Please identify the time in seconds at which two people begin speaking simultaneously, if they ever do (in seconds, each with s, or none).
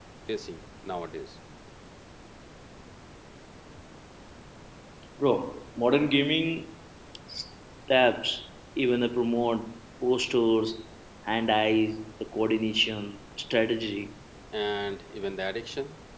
none